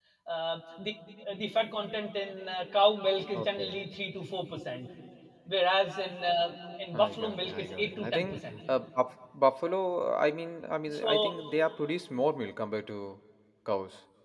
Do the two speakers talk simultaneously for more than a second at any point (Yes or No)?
Yes